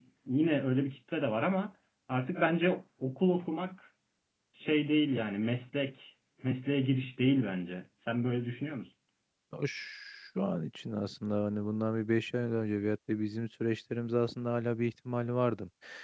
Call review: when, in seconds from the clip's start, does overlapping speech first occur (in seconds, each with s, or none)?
none